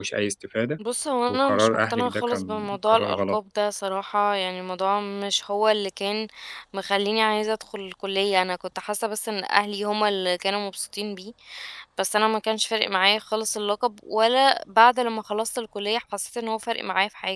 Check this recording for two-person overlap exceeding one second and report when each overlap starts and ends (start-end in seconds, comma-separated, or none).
1.3-3.4